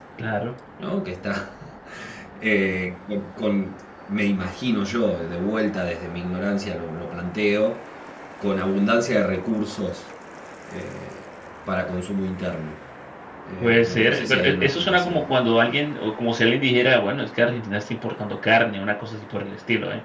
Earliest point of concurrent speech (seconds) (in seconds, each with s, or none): 13.6 s